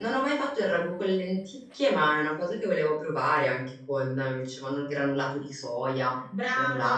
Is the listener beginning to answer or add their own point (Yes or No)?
Yes